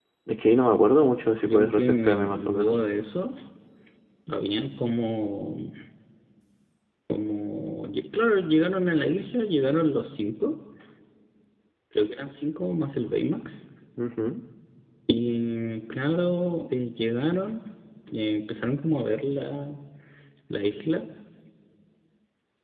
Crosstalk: present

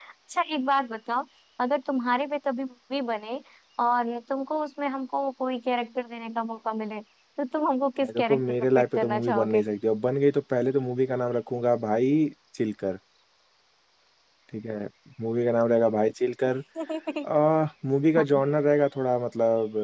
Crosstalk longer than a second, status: present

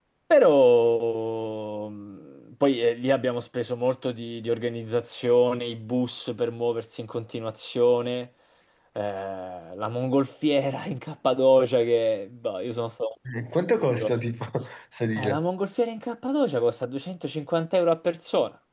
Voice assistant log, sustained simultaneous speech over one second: none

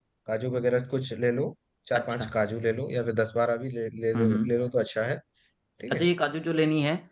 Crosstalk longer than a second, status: none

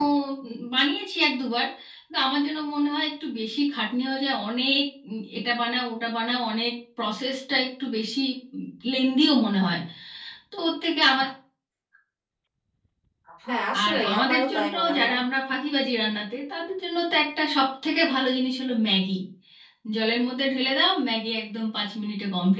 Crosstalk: present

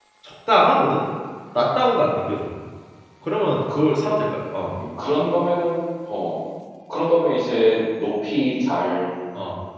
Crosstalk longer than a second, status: none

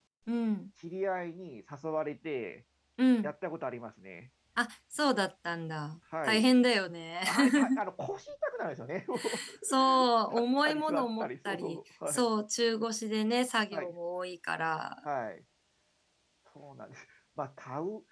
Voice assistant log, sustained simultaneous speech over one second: present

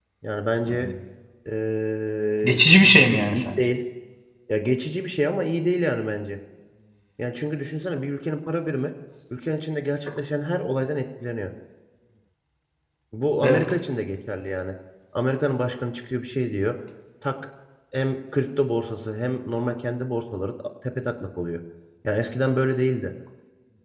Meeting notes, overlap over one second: present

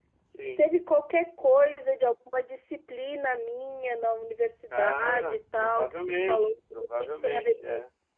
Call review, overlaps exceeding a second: present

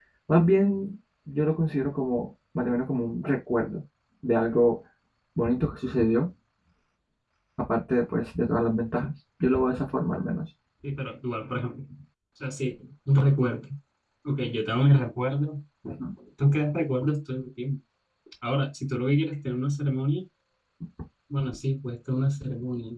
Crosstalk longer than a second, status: none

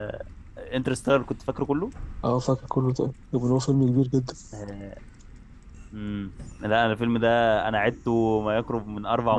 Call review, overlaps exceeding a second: none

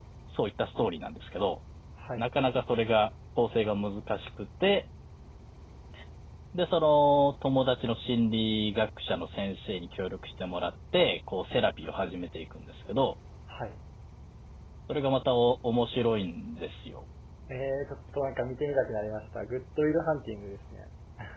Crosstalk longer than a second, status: none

